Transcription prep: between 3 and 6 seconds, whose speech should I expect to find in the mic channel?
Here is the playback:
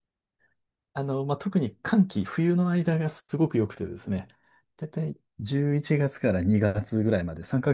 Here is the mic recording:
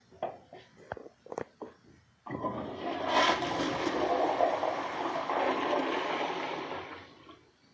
neither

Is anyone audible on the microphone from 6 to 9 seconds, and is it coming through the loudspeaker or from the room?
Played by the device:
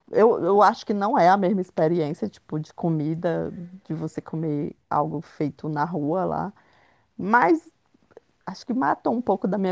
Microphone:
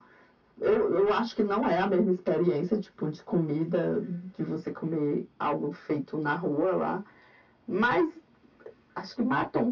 echo only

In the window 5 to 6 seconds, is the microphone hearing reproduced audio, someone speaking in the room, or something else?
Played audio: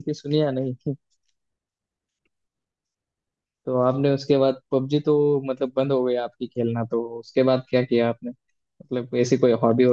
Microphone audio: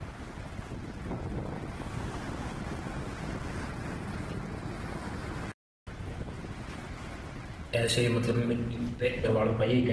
neither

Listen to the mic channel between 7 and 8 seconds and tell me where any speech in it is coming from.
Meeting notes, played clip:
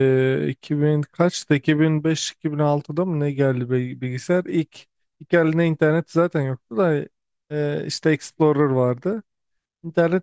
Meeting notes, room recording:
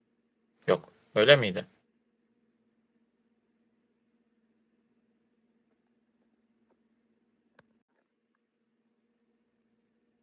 neither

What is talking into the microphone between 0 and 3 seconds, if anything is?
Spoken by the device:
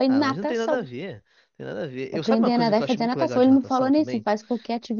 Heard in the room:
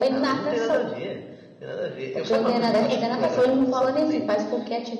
echo only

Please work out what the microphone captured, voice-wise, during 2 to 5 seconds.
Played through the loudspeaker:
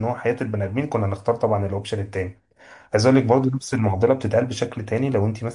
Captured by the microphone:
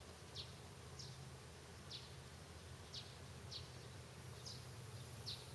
neither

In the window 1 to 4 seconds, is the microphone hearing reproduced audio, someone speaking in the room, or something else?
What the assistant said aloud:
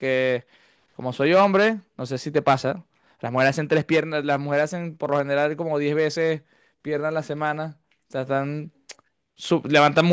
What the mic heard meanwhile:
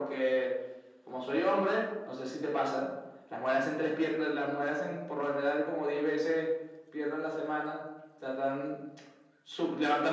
echo only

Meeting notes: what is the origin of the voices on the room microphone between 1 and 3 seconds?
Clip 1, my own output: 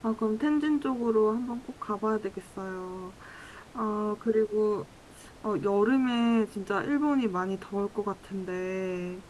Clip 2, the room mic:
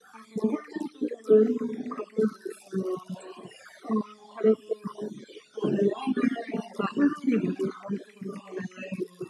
echo only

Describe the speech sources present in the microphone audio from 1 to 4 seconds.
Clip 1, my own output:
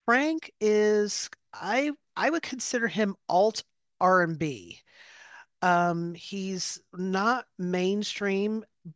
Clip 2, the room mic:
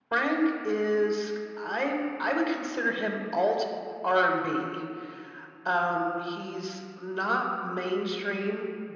echo only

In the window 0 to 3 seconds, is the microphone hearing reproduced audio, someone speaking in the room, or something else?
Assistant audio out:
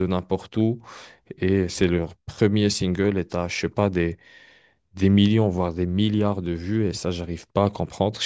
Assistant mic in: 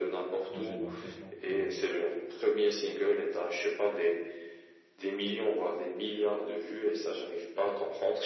both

